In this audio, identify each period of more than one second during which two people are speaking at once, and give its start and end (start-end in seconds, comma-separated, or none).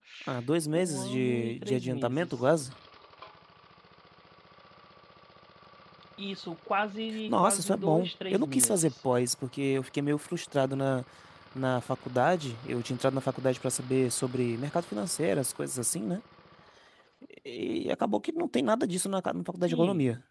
0.7-2.3, 7.3-8.9